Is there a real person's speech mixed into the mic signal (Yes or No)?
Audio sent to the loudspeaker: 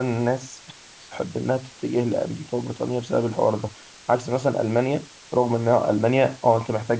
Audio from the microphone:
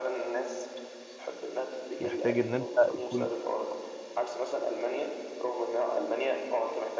Yes